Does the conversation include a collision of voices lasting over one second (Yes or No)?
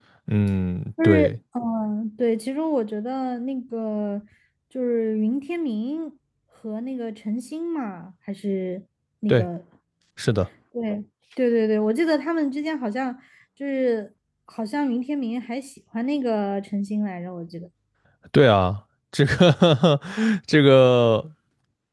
No